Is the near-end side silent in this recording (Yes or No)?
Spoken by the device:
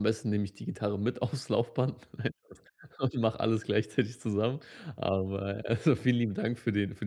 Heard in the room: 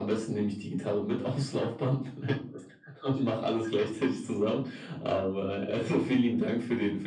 Yes